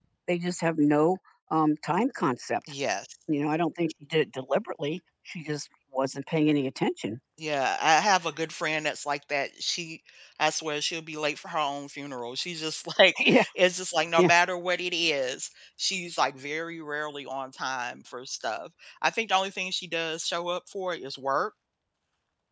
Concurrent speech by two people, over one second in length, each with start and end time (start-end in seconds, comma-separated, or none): none